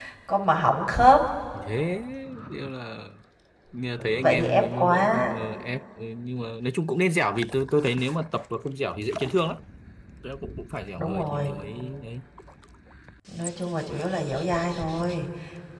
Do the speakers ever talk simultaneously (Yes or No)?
Yes